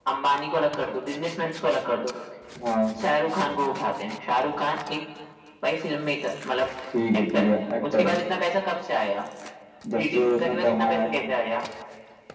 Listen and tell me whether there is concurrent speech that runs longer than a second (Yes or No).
Yes